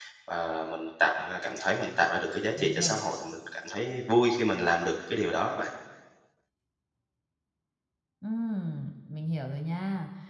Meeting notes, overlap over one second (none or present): none